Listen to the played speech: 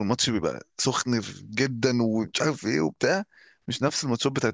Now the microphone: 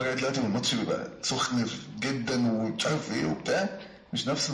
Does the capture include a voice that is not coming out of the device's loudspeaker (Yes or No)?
No